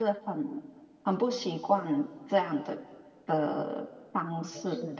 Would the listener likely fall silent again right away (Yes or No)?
No